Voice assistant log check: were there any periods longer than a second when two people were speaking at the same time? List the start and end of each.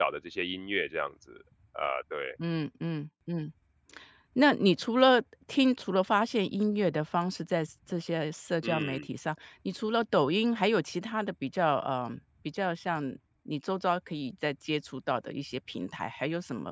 none

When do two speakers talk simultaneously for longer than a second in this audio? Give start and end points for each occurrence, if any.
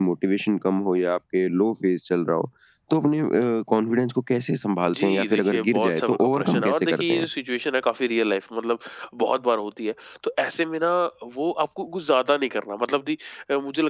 4.8-7.3

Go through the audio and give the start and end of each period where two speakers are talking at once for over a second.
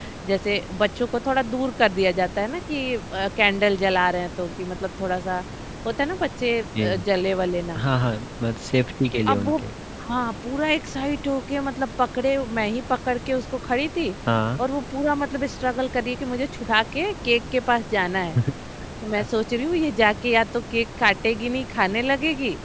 none

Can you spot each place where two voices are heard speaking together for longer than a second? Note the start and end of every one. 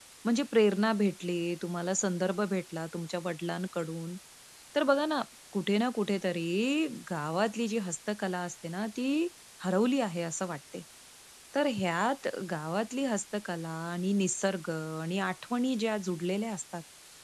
none

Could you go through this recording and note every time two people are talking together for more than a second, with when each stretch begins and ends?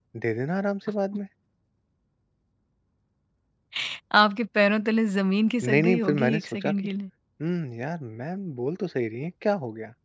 5.6-6.9

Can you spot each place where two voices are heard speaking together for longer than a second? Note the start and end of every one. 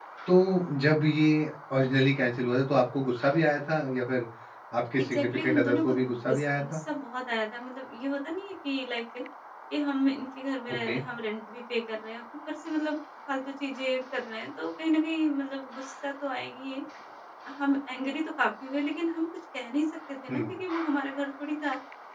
5.0-6.8

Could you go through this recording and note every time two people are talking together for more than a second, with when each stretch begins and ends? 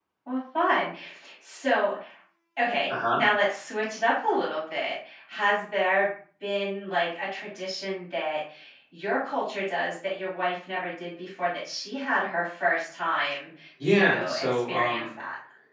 13.9-15.1

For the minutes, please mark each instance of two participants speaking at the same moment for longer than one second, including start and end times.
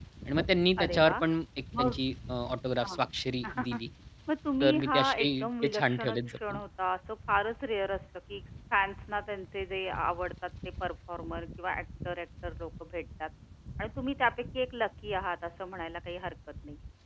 4.6-6.6

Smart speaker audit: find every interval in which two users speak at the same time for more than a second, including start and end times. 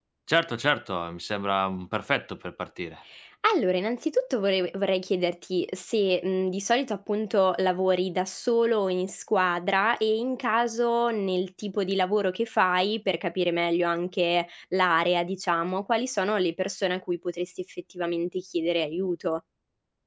none

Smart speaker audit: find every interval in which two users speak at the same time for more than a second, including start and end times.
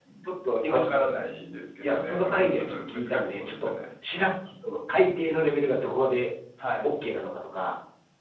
1.8-3.7

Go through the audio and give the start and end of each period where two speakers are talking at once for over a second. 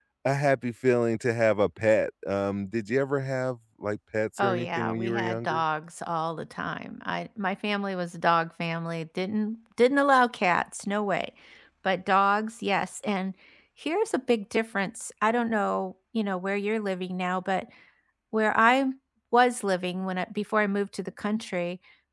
4.4-5.6

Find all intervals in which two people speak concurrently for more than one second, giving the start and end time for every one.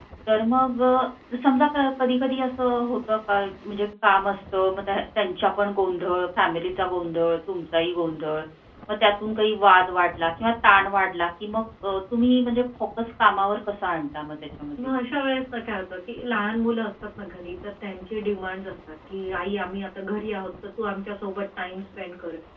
none

